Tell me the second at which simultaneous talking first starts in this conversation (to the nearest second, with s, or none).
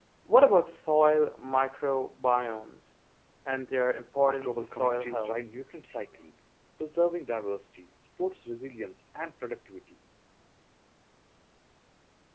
4 s